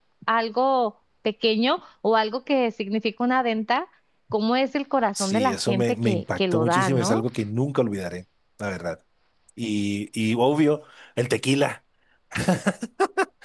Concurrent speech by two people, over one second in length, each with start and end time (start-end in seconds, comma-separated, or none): 5.2-7.2